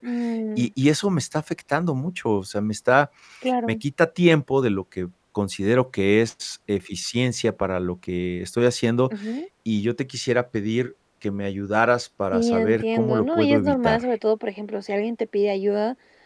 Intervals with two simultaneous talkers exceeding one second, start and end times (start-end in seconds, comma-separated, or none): 12.3-14.1